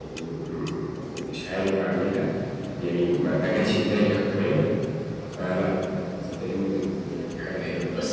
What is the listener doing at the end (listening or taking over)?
taking over